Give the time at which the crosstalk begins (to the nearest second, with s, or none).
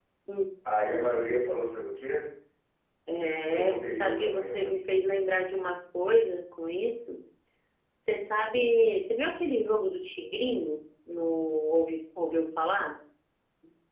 4 s